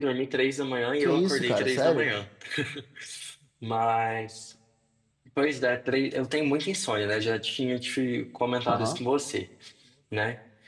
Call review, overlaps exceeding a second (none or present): present